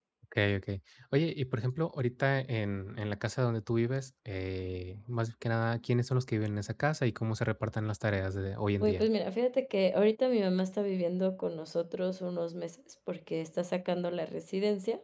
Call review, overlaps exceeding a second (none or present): none